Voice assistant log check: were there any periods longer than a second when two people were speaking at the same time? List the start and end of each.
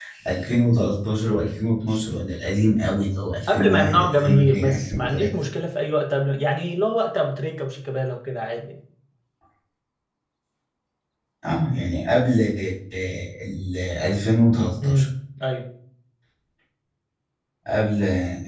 3.5-5.4

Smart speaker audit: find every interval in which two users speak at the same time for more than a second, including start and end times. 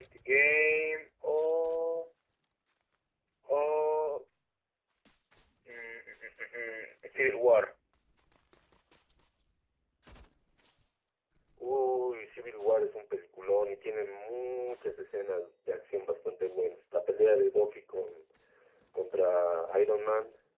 none

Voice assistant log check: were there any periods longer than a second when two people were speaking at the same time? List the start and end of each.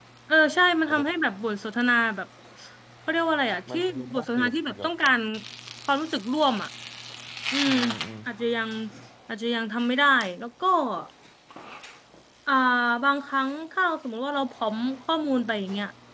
3.7-4.9

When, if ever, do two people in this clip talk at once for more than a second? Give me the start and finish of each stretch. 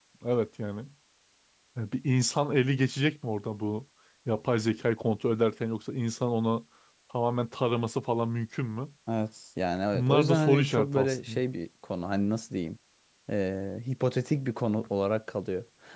9.9-11.4

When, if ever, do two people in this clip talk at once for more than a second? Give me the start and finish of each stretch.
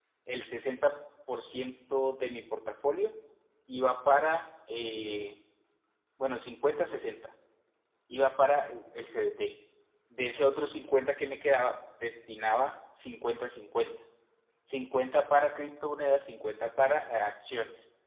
none

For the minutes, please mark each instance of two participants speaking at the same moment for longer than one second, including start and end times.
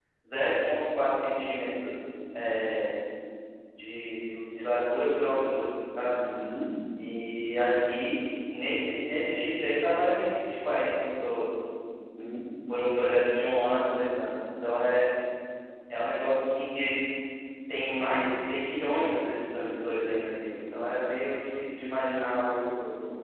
none

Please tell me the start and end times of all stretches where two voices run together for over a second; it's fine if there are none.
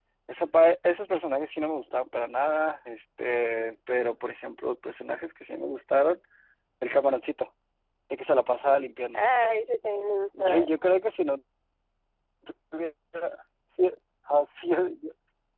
none

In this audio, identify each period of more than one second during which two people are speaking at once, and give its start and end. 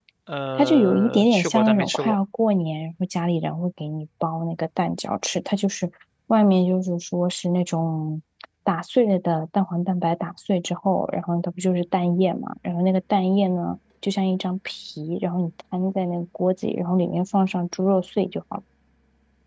0.6-2.2

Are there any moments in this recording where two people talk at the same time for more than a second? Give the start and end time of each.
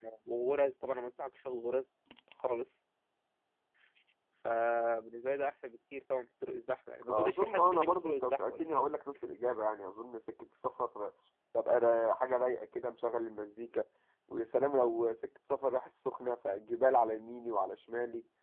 7.1-8.8

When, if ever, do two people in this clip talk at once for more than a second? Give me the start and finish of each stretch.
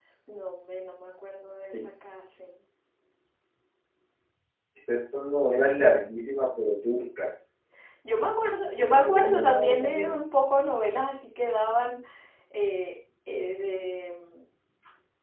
8.8-10.3

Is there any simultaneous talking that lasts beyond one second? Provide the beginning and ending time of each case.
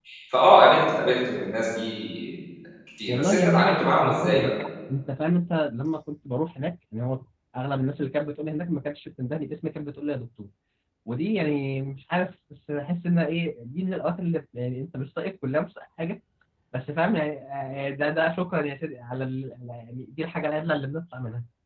3.1-4.5

